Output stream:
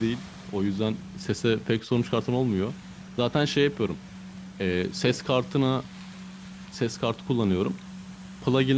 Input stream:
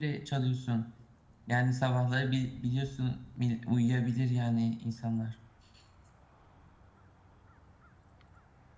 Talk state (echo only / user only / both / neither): user only